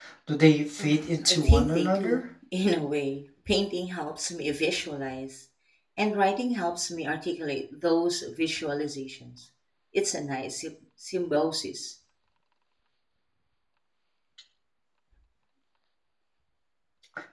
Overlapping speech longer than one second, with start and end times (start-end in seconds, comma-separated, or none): 0.8-2.2